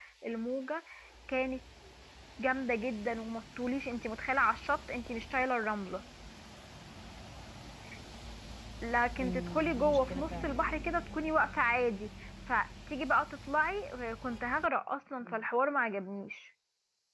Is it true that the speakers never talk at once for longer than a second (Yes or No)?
No